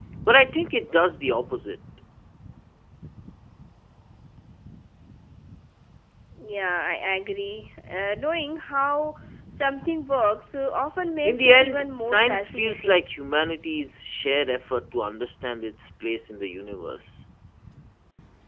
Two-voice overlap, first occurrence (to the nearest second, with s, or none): 11 s